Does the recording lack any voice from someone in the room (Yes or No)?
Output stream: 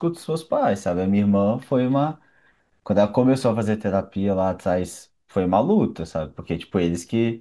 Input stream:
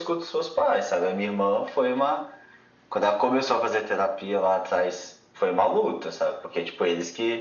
Yes